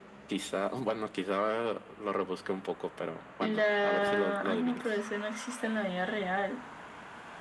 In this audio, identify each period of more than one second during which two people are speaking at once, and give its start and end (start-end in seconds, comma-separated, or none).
3.4-5.0